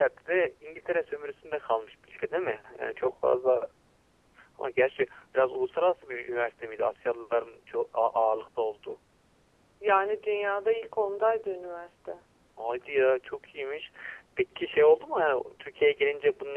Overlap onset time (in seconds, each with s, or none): none